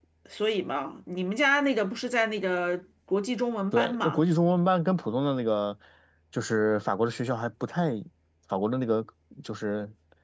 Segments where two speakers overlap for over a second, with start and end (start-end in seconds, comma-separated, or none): none